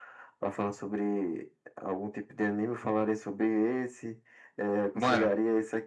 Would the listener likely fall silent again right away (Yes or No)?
Yes